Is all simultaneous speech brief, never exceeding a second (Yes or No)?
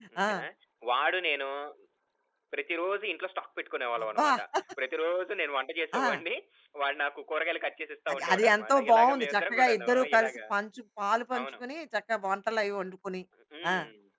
No